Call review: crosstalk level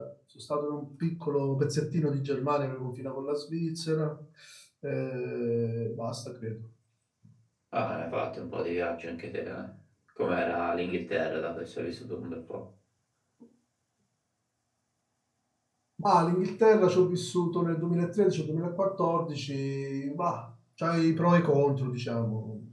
none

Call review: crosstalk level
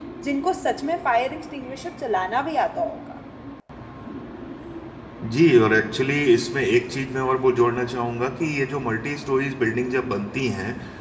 none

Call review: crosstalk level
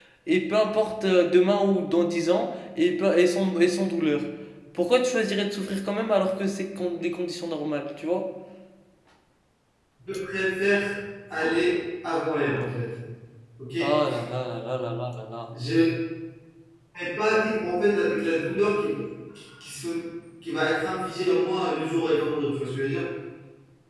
none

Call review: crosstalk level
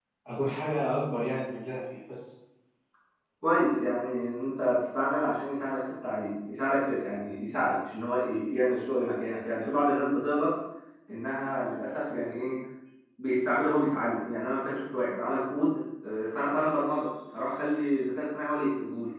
none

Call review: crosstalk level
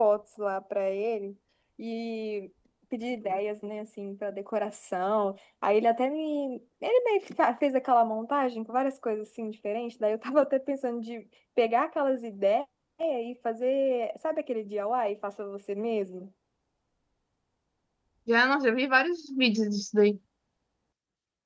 none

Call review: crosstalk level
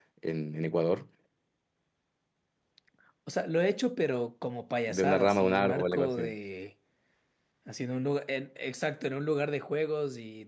present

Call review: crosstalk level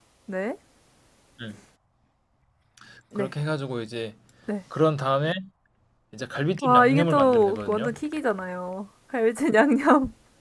present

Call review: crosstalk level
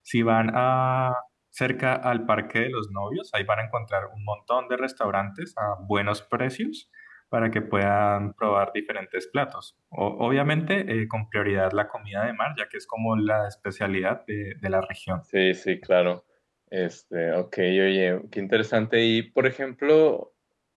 none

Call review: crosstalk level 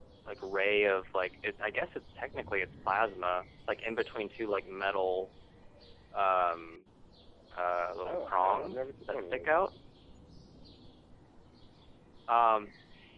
present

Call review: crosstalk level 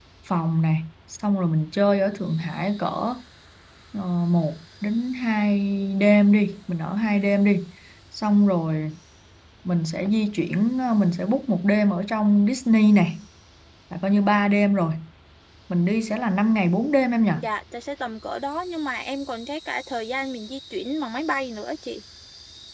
none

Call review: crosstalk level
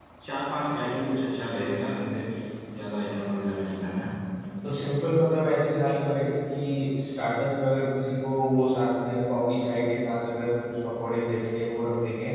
none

